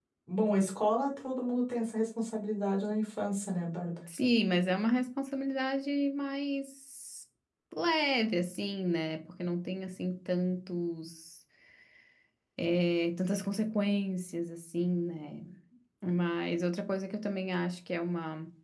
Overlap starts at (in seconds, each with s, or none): none